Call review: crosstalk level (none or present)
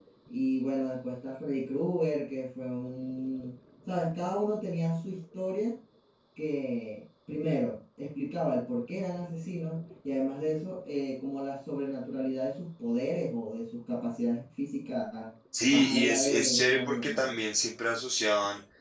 present